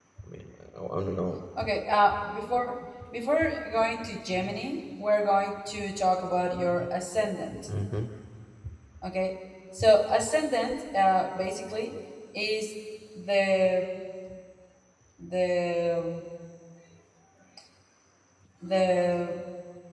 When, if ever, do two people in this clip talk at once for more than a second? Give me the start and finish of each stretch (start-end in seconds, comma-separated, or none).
none